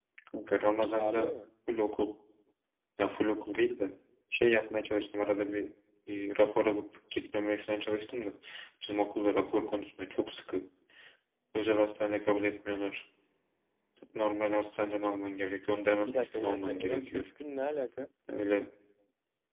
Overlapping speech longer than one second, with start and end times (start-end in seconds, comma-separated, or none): 16.0-17.2